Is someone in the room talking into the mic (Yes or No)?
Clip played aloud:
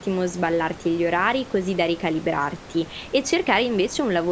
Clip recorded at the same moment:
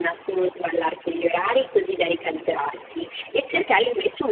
No